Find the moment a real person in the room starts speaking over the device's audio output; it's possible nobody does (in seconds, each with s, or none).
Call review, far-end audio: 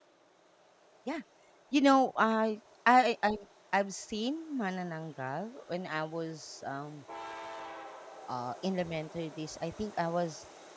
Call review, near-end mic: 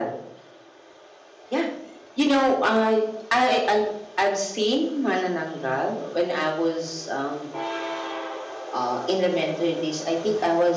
none